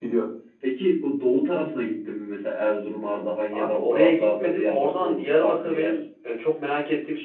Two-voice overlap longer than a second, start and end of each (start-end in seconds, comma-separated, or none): 3.5-5.9